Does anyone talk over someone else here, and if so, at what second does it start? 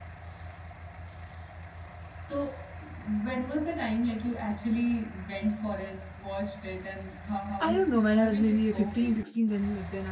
8 s

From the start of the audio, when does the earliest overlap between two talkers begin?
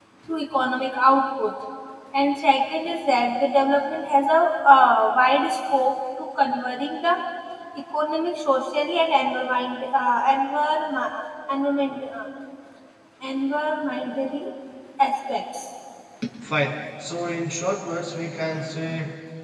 none

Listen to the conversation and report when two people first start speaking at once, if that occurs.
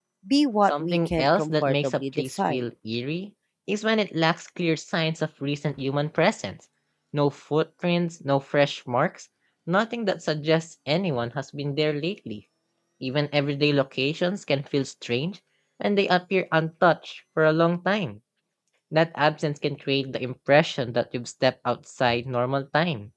1 s

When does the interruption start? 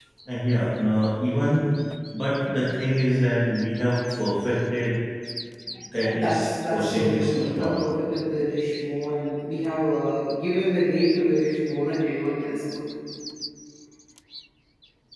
6 s

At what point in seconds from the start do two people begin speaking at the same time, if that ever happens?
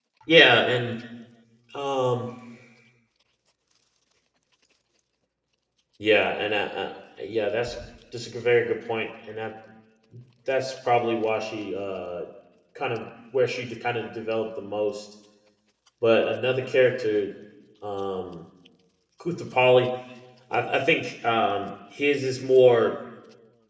none

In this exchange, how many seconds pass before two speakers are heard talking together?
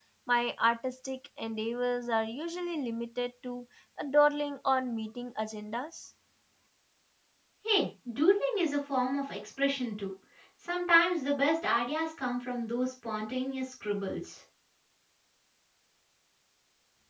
none

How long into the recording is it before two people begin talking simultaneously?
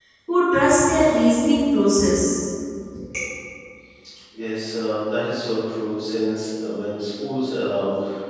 none

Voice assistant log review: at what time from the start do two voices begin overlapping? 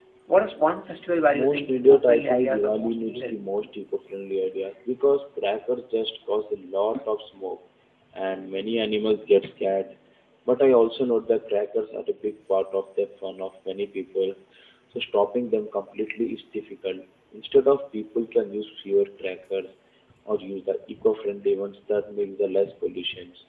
1 s

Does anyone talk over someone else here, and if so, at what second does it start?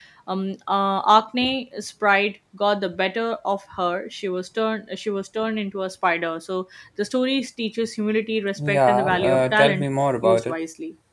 9 s

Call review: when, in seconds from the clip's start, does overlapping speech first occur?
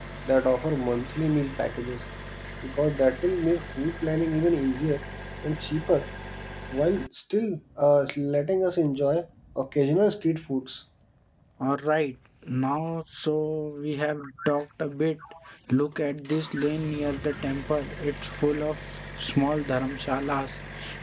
none

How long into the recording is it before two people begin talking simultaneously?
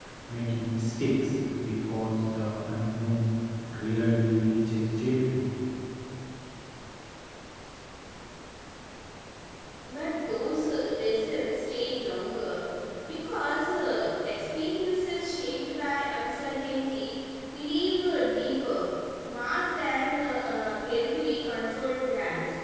none

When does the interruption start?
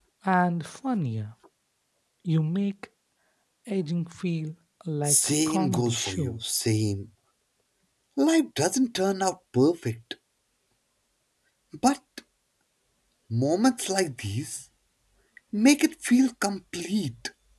5 s

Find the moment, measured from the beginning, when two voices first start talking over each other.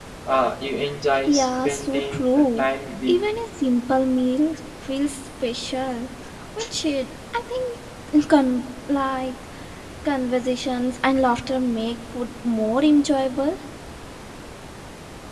1 s

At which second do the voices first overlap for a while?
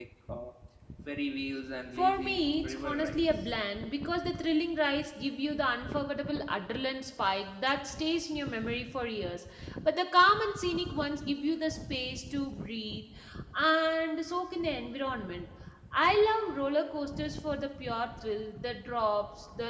2 s

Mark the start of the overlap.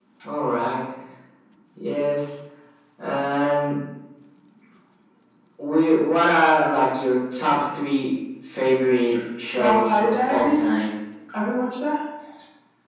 10 s

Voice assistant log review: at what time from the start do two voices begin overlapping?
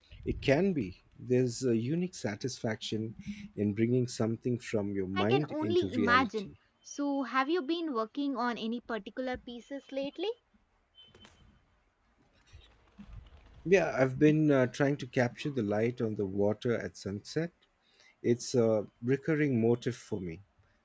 5 s

